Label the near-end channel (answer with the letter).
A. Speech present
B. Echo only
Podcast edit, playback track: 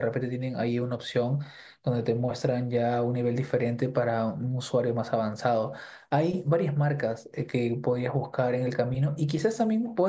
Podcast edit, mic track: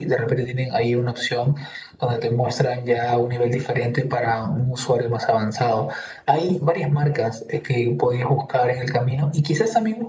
B